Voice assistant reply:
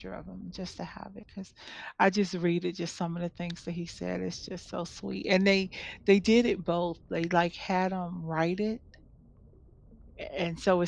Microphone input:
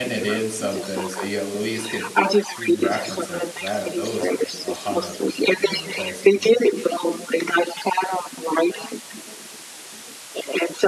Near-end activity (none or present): present